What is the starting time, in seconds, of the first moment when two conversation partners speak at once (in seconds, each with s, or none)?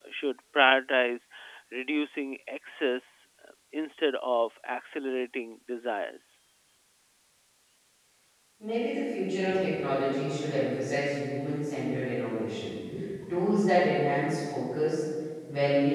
none